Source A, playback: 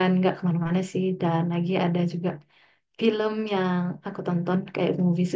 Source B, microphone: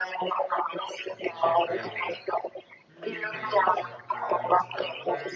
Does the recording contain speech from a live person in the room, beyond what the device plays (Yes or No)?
Yes